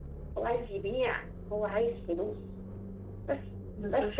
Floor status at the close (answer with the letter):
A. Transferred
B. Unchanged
B